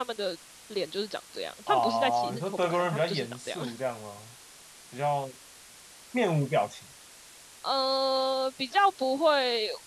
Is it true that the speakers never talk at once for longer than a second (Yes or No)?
No